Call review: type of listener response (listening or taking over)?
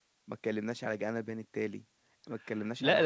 taking over